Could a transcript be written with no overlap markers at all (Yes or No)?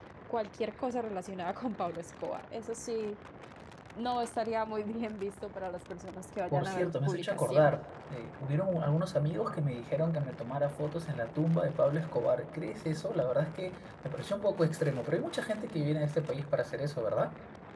No